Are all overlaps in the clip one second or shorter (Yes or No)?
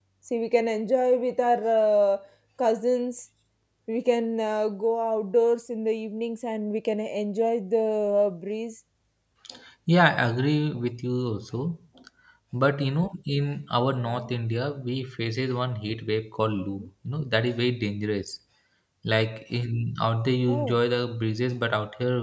Yes